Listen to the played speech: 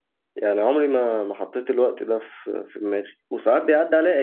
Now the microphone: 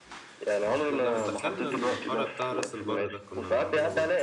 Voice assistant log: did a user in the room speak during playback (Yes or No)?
Yes